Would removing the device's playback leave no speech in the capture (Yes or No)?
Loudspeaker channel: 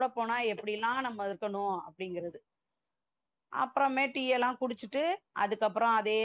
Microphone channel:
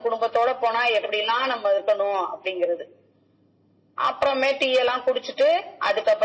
Yes